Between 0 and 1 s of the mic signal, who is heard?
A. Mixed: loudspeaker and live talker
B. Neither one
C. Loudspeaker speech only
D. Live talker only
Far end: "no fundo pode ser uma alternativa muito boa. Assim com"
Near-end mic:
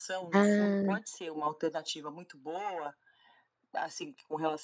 A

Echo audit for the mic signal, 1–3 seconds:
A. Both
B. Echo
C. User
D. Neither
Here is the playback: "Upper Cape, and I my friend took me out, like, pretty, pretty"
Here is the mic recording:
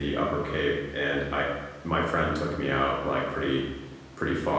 B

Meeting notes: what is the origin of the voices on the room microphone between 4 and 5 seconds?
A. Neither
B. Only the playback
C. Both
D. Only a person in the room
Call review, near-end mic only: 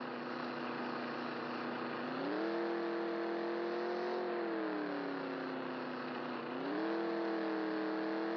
A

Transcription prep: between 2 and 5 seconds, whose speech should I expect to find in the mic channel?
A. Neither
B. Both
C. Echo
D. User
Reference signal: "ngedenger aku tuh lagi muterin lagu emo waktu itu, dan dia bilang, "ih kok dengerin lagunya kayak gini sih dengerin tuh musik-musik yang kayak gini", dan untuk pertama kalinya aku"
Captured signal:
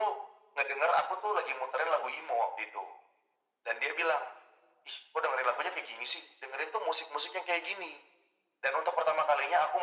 C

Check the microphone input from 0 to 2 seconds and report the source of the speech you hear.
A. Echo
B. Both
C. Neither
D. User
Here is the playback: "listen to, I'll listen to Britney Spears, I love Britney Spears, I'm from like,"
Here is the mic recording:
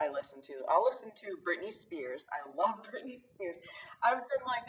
A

